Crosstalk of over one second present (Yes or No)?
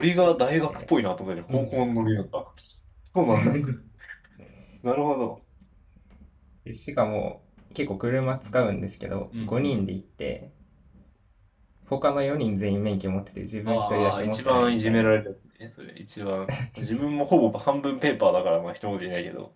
Yes